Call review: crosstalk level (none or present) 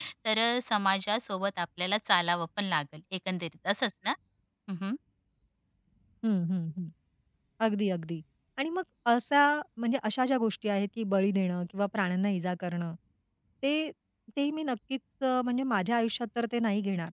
none